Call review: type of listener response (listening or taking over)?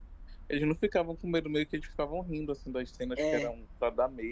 listening